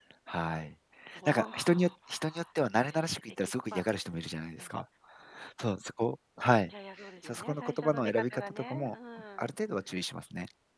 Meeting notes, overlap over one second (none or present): present